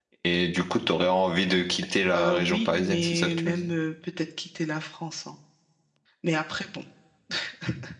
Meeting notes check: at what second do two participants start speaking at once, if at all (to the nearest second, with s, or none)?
2 s